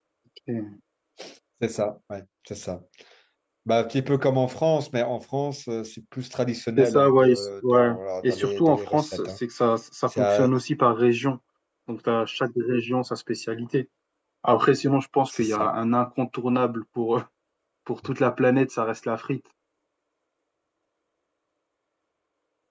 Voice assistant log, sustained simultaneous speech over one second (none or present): present